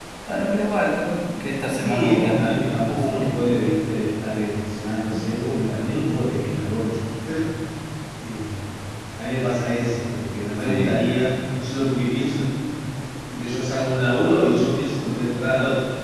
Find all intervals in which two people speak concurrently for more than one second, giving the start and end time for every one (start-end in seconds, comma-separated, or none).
1.7-3.4